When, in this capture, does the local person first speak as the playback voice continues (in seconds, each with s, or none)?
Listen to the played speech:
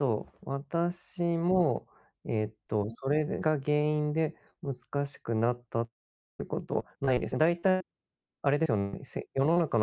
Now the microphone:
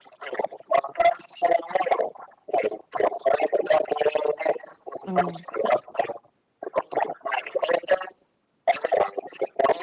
5.0 s